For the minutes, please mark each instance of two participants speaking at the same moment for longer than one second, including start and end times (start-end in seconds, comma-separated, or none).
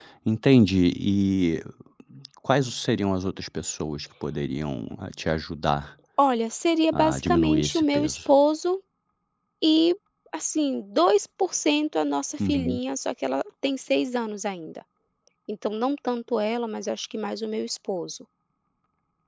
6.9-8.3